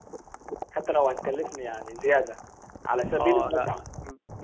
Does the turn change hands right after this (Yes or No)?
Yes